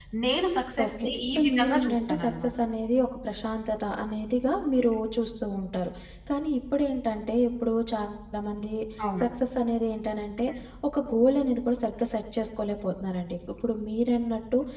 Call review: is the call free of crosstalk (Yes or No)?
No